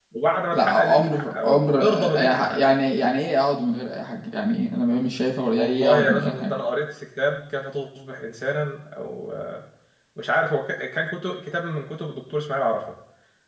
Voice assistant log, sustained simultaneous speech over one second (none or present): present